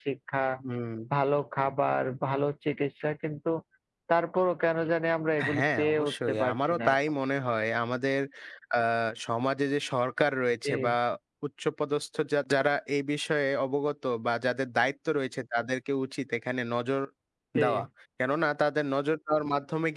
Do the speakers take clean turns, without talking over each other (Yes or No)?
No